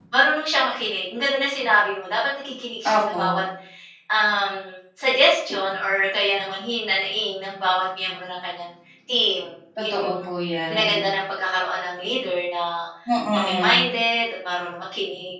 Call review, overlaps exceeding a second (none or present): none